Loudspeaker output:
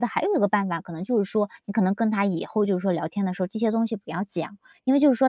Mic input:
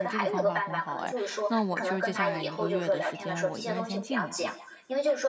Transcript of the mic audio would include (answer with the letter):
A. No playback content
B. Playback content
B